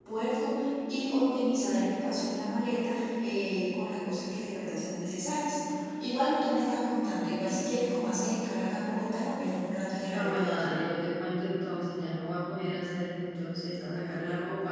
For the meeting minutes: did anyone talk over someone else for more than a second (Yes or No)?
No